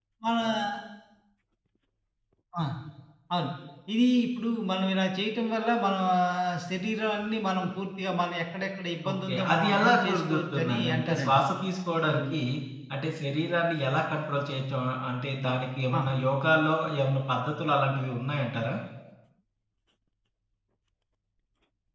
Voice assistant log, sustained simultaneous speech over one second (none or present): present